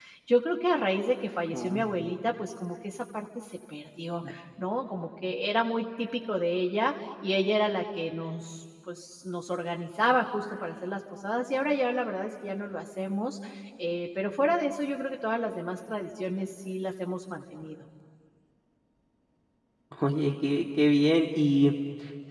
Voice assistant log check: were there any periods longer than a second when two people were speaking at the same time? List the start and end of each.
none

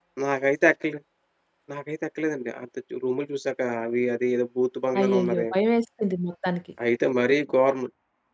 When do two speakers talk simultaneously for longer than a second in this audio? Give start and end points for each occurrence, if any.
none

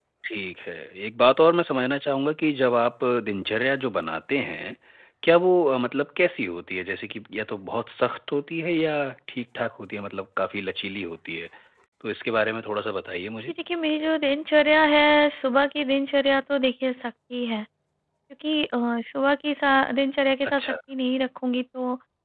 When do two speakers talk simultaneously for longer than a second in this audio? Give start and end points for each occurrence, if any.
none

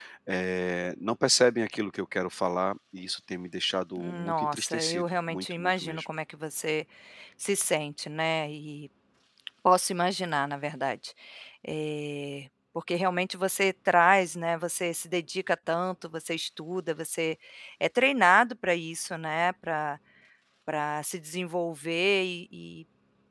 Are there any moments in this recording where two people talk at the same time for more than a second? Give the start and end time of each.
4.0-6.0

